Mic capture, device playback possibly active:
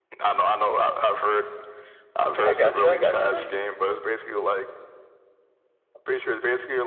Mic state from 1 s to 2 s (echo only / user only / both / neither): echo only